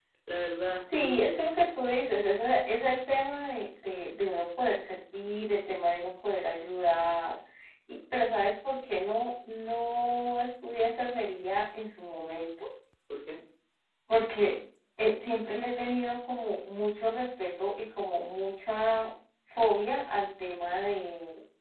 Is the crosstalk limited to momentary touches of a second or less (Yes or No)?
Yes